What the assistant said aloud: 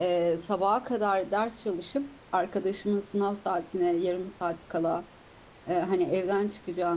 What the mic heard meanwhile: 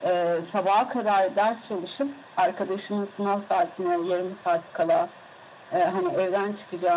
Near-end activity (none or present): none